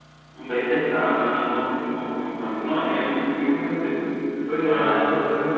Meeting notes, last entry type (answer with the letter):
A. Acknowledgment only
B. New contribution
B